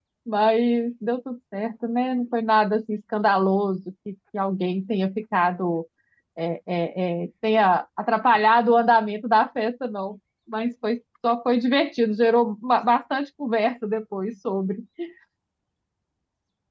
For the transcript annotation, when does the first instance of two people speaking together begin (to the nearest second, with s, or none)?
none